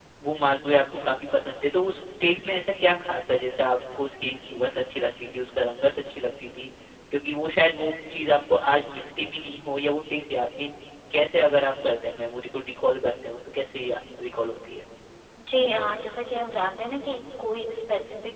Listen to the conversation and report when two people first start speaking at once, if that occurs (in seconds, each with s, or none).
none